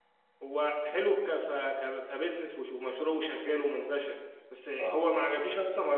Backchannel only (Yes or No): Yes